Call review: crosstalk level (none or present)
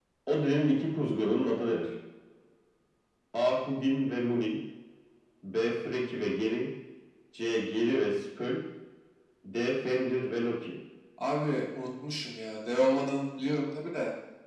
none